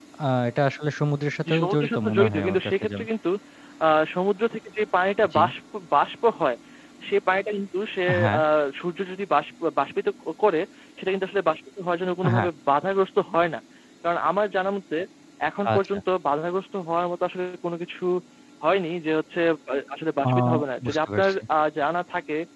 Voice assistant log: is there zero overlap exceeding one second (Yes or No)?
No